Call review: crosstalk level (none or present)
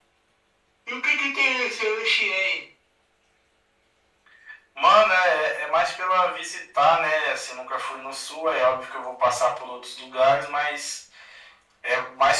none